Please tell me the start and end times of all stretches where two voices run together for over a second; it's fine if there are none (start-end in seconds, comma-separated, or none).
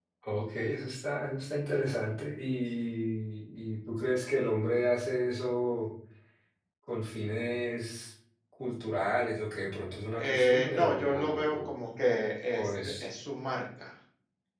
10.2-11.7